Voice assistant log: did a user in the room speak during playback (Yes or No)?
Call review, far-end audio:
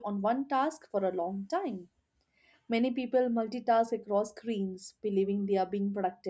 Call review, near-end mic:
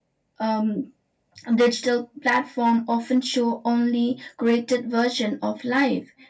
Yes